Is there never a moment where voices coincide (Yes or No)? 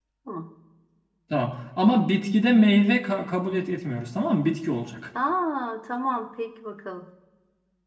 Yes